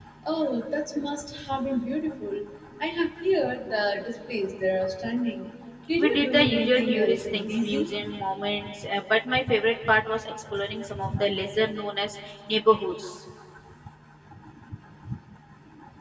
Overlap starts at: 6.0 s

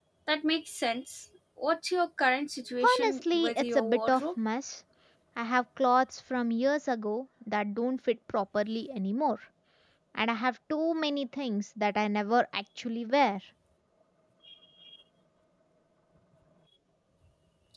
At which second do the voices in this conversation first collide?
2.8 s

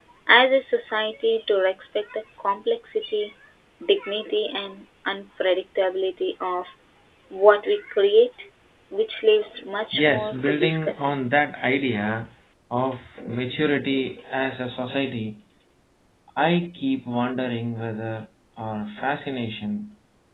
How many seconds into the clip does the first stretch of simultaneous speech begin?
9.9 s

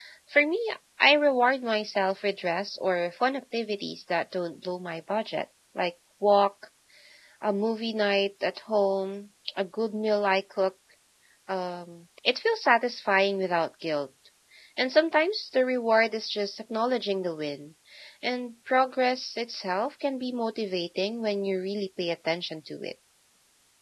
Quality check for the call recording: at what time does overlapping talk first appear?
none

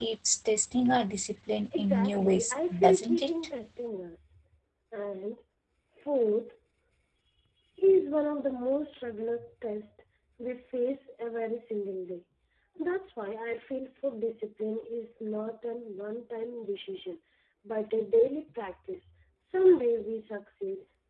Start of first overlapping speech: 1.8 s

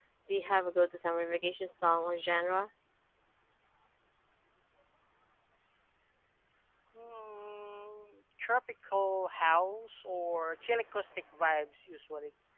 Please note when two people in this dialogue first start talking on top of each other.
none

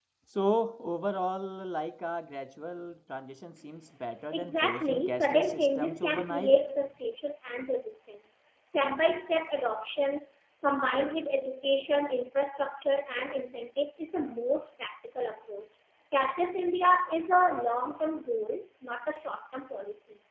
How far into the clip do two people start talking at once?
4.3 s

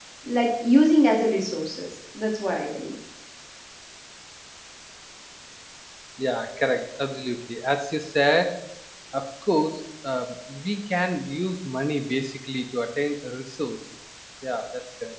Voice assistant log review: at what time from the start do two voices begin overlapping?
none

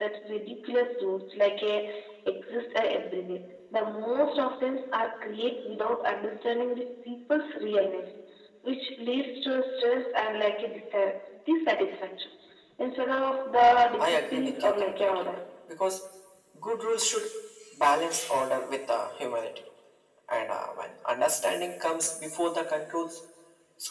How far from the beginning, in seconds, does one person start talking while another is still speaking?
14.0 s

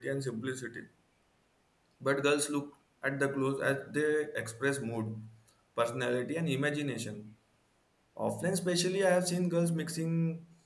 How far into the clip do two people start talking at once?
none

